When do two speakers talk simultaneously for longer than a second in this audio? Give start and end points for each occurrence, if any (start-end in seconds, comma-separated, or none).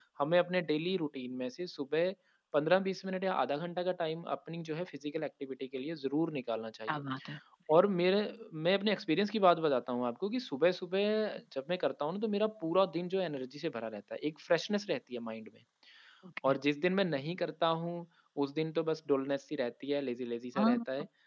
none